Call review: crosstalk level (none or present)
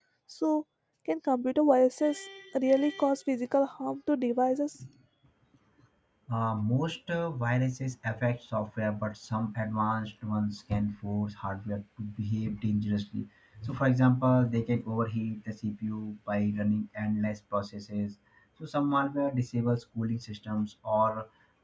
none